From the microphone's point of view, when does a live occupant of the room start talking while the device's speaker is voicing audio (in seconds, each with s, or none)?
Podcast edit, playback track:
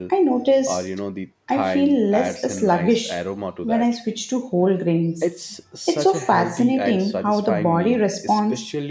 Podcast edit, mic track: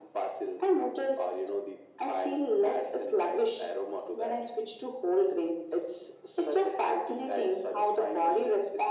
none